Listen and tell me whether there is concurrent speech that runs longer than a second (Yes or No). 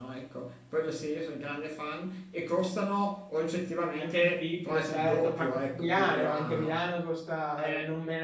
Yes